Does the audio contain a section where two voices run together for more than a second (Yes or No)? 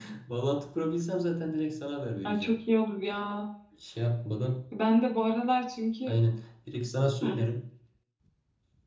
No